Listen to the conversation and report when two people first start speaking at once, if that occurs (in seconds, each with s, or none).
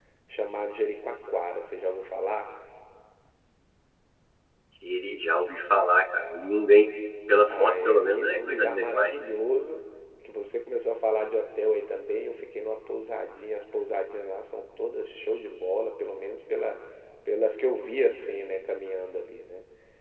7.5 s